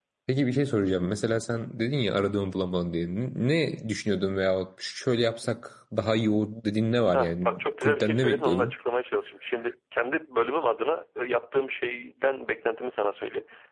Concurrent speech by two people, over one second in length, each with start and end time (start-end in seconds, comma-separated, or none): 7.2-8.7